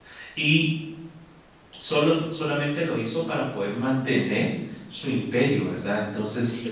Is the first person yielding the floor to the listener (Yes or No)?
No